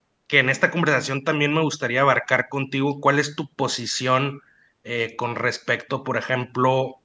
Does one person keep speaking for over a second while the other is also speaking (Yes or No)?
No